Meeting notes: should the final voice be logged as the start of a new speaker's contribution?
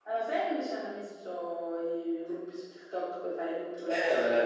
Yes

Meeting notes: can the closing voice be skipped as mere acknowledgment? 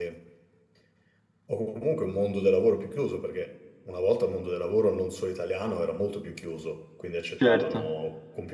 Yes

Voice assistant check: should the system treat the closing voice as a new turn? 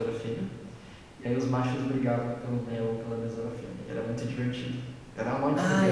Yes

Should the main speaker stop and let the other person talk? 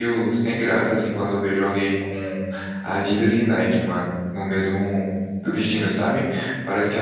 Yes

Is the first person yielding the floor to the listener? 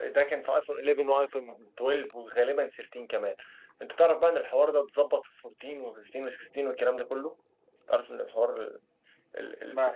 No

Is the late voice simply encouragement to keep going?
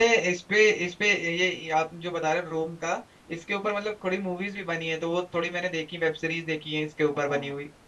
No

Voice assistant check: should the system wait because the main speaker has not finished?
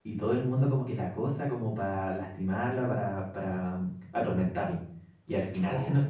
Yes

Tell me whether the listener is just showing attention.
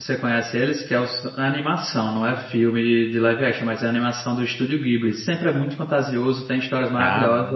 Yes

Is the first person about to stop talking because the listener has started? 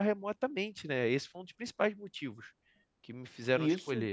Yes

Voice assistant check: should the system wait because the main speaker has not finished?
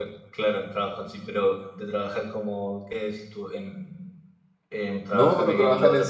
No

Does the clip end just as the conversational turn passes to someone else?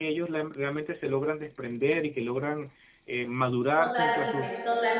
Yes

